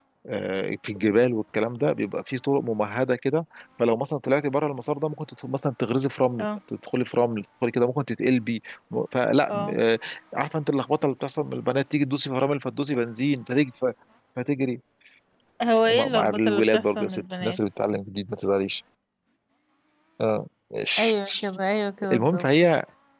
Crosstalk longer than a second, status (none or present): present